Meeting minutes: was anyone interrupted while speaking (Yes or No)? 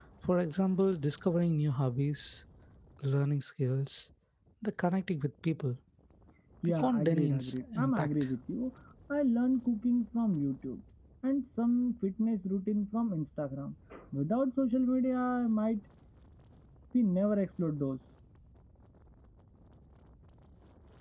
Yes